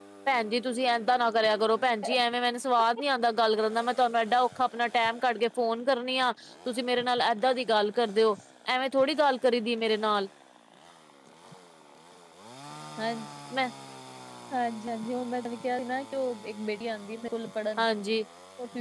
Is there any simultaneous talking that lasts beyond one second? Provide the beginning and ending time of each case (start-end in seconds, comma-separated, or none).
none